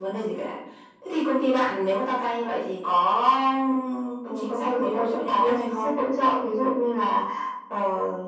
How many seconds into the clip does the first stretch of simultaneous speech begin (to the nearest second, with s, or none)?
4 s